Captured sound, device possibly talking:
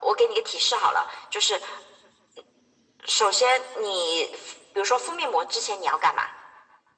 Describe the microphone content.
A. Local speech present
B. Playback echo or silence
B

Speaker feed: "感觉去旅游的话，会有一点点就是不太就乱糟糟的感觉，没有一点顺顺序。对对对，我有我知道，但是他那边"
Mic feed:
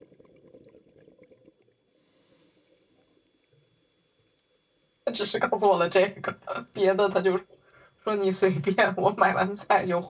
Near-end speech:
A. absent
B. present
B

